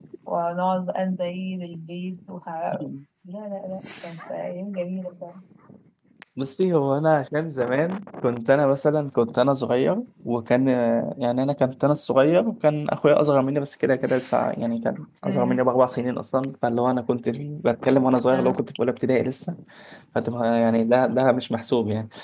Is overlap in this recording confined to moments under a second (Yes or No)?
Yes